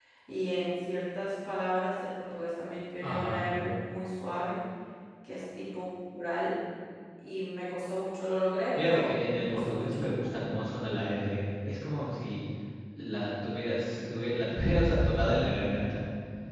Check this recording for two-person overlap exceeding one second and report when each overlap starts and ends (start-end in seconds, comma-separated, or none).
8.8-10.0